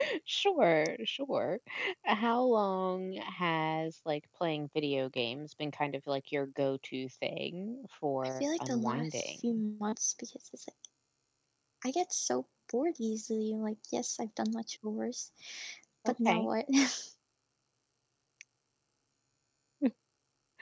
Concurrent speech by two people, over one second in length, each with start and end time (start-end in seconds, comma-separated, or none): 8.2-9.6